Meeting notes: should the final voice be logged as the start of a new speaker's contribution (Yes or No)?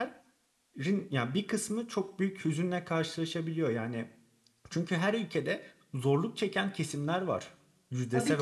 Yes